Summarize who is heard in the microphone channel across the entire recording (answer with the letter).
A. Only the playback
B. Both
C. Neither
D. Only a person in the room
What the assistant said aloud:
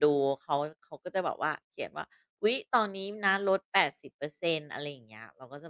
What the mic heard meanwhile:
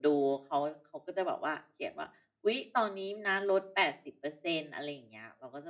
A